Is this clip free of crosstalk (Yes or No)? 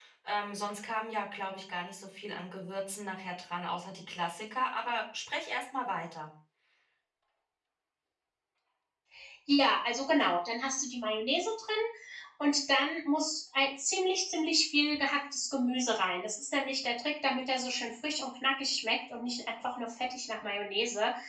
Yes